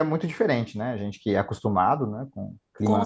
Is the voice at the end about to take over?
Yes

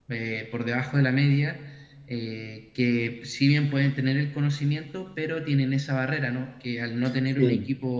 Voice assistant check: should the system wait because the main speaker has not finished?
Yes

